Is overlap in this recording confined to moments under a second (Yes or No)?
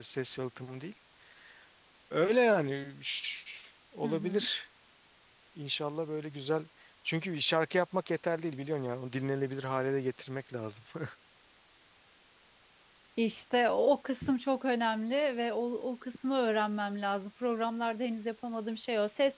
Yes